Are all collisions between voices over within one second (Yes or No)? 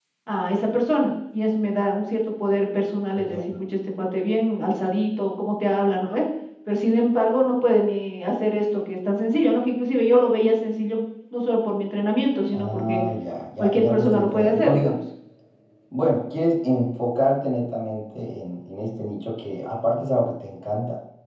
No